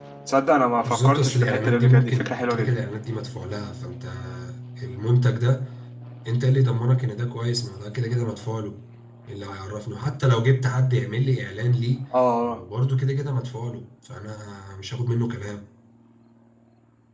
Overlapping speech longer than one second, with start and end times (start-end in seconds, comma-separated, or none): 0.8-2.7